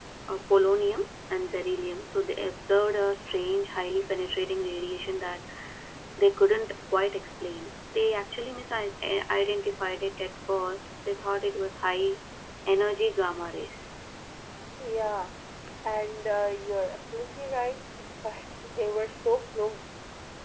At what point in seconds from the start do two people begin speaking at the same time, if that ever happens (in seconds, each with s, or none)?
none